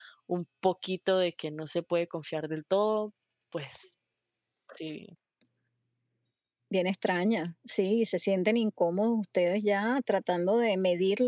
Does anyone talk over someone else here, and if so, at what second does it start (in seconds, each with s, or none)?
none